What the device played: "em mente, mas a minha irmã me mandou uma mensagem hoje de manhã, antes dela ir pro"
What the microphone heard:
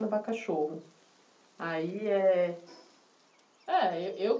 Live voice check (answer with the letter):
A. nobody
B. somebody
B